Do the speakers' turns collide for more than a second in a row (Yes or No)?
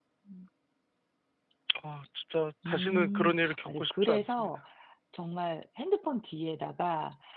Yes